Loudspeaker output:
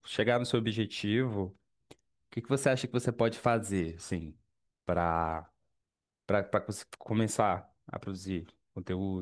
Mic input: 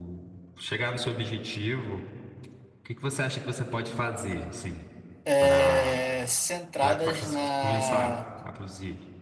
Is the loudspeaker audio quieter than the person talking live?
Yes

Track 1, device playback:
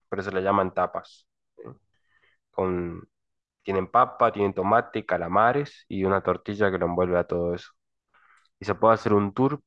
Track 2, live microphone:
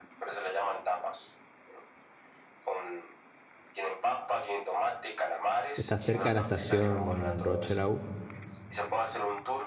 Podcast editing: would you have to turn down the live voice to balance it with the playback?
Yes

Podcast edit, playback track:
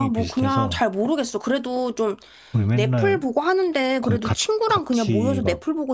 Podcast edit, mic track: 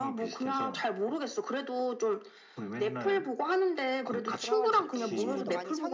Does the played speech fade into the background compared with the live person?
No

